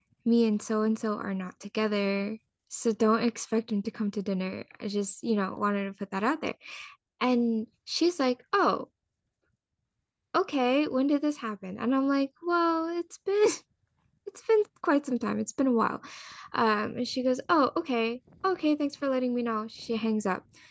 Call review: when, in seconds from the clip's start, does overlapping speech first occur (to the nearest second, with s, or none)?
none